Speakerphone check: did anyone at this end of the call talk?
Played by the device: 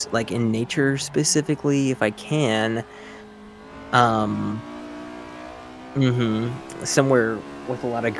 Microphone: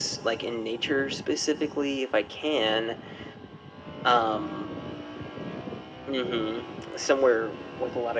No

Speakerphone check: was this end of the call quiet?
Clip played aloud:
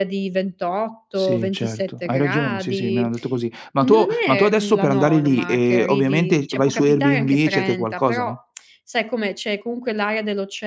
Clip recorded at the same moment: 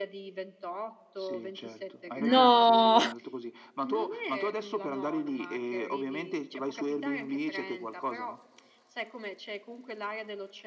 No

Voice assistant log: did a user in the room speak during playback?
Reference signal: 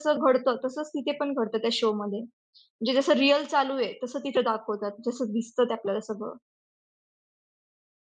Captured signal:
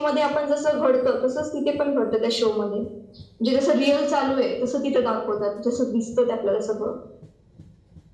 No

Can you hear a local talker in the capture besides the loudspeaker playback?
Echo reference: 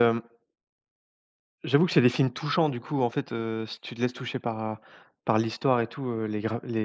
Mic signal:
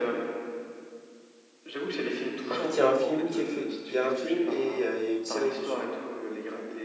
Yes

